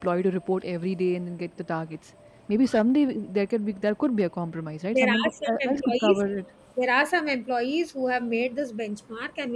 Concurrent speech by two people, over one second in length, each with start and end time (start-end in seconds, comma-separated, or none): 4.9-6.2